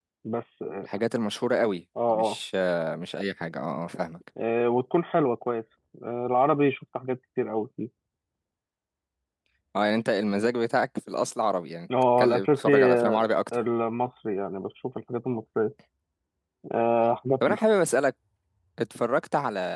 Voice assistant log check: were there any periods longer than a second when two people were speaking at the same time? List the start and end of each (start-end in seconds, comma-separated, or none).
12.2-13.6